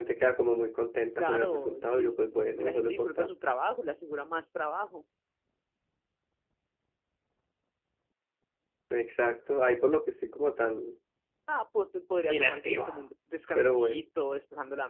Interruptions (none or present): present